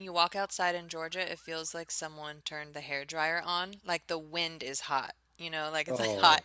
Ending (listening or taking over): listening